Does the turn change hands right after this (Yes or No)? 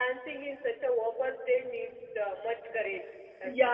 Yes